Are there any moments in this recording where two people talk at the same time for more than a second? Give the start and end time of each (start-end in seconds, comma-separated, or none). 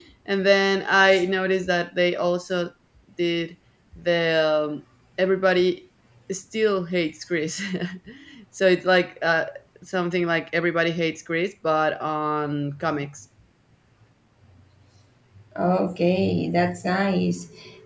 none